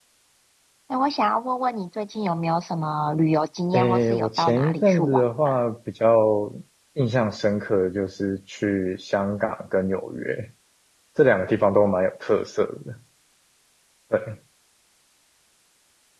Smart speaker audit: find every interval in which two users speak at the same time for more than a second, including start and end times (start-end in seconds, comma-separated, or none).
3.7-5.6